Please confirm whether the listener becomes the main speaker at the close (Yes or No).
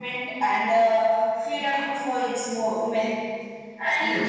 Yes